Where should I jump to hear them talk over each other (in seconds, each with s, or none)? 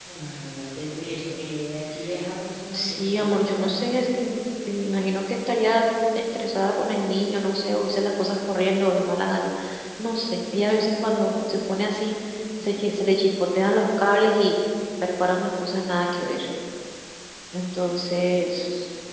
2.7 s